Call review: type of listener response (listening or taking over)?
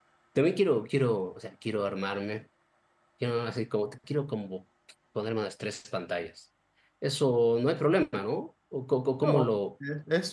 taking over